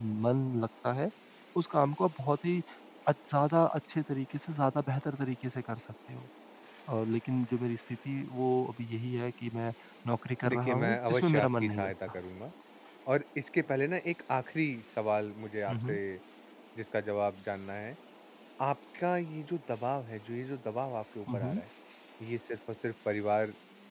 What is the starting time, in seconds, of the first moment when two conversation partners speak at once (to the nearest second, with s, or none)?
10 s